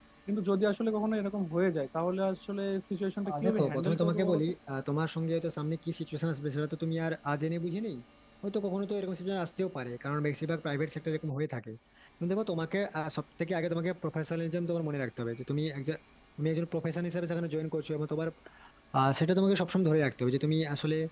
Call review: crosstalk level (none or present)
present